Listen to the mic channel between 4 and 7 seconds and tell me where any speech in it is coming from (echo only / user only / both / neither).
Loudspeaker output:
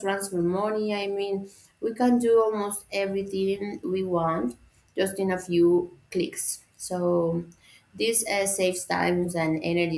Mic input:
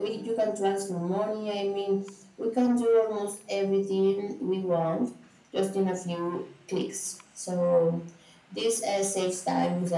echo only